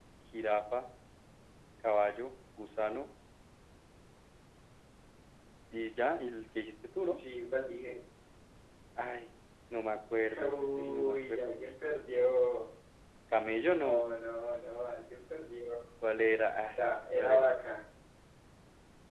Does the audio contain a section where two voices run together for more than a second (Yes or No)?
Yes